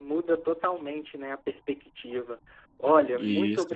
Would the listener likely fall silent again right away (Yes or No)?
Yes